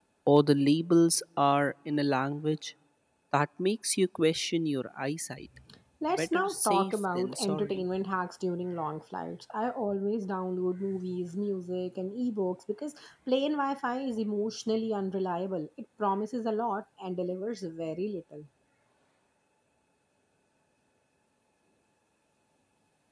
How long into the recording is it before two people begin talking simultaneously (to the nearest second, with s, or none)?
6 s